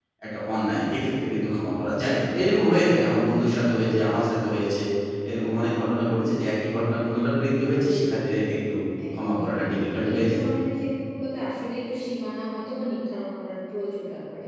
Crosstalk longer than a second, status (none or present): present